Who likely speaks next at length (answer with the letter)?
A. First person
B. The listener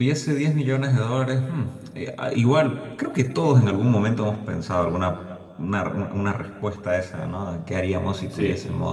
A